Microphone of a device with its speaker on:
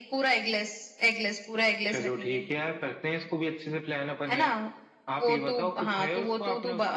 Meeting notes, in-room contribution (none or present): none